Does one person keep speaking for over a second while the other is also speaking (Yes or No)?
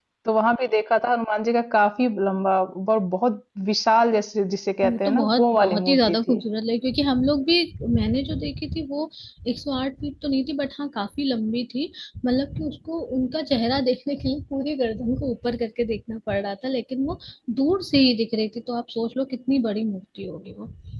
Yes